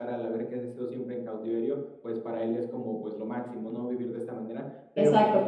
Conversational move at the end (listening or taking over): taking over